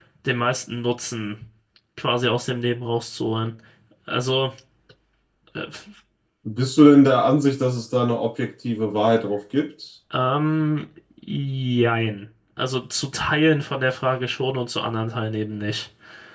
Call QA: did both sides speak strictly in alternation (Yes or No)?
Yes